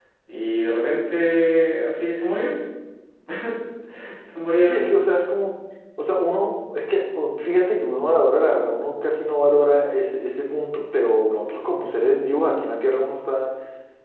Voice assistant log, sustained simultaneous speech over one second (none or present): none